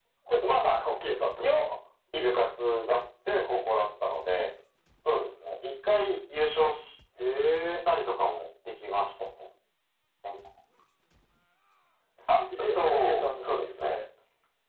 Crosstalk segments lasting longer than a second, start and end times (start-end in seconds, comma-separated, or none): 12.3-13.9